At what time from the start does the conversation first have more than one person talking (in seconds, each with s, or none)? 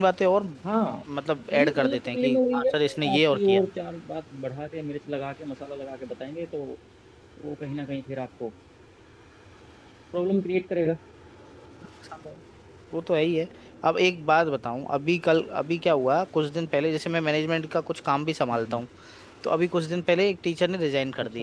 1.5 s